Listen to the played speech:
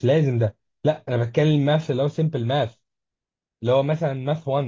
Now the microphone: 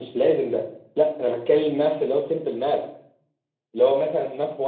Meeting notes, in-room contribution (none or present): none